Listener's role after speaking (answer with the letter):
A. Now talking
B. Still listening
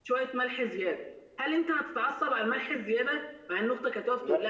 B